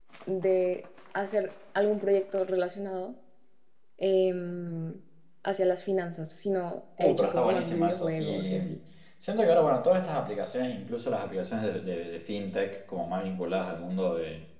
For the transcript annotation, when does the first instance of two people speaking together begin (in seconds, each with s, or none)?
7.0 s